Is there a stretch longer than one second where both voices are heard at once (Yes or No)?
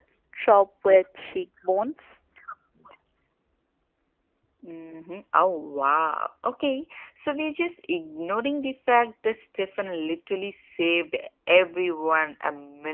No